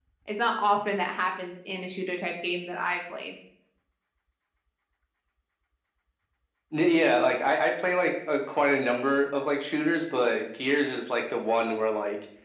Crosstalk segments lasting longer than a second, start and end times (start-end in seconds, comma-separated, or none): none